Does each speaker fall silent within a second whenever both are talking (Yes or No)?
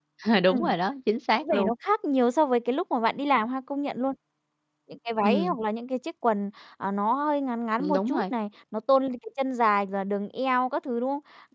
Yes